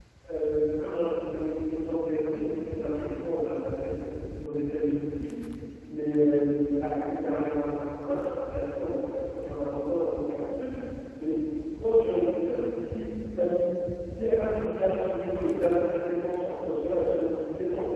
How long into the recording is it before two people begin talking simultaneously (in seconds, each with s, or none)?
none